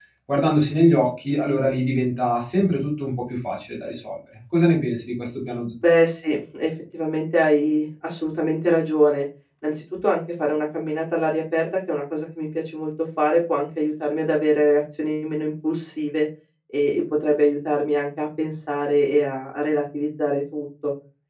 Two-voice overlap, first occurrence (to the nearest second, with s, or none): none